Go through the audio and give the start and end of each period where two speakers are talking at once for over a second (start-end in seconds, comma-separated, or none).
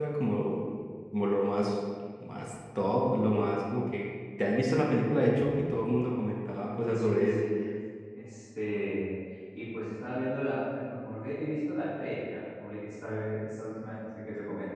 none